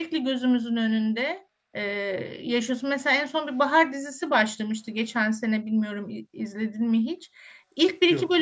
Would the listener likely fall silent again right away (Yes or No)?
Yes